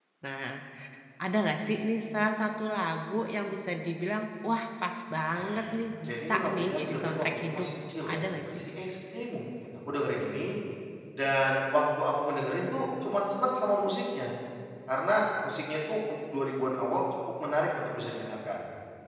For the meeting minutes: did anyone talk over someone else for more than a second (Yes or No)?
Yes